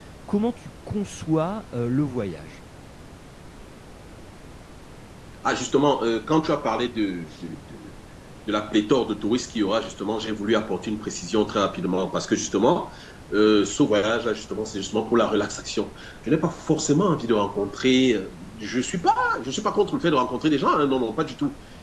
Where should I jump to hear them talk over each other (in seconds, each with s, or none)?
none